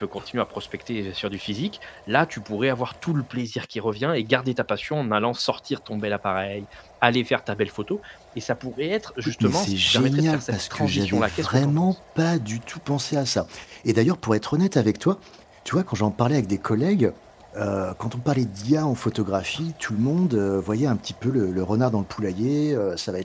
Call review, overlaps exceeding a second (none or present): present